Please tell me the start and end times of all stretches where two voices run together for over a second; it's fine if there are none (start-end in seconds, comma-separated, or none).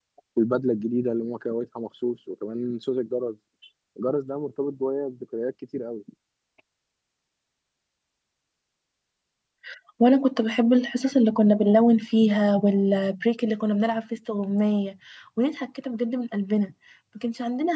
none